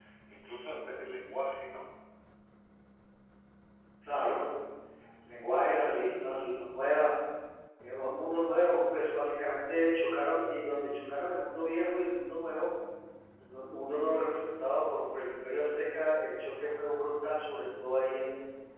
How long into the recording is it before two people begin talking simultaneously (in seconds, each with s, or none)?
none